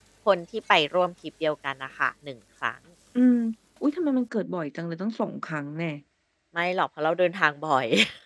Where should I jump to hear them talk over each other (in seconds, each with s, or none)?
none